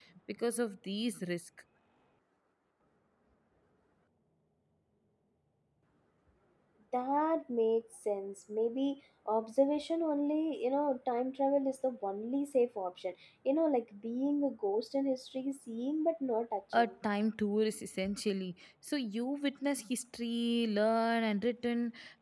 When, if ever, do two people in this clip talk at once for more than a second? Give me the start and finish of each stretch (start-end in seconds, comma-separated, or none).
none